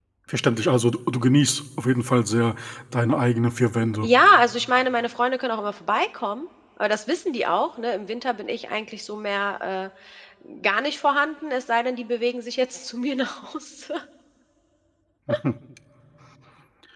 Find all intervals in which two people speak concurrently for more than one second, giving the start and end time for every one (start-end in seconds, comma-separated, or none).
none